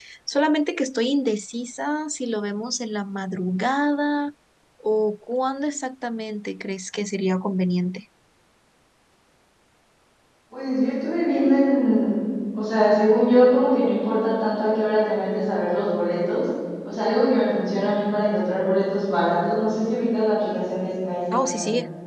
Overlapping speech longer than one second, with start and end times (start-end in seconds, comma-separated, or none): none